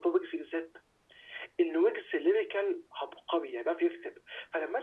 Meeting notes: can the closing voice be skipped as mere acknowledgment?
Yes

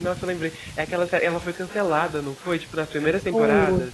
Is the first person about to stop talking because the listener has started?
Yes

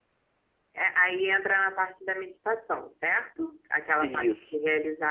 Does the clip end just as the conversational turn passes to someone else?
No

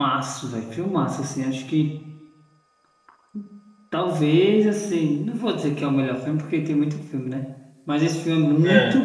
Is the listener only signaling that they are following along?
Yes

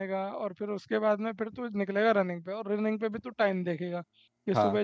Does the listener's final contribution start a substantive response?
No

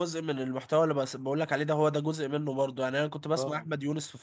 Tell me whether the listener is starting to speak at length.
No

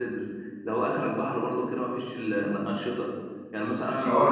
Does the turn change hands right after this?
Yes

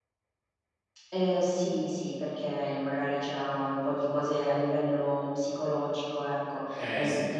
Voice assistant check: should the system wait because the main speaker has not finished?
Yes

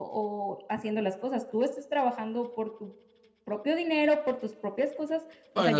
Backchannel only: No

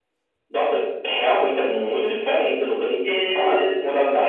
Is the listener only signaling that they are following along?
No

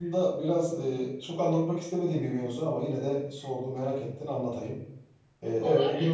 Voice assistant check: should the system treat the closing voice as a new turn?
No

